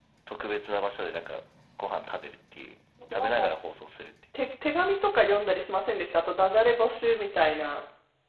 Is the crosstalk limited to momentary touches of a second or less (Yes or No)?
Yes